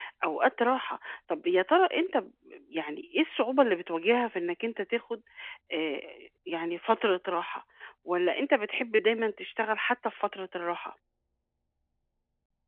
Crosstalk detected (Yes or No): No